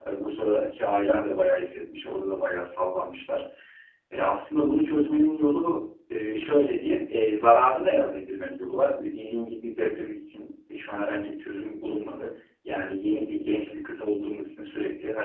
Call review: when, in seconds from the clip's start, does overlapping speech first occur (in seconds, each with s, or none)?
none